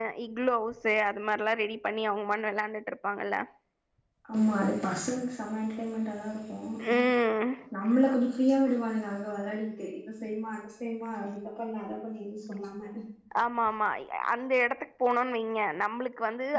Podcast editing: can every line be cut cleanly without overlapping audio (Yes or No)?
Yes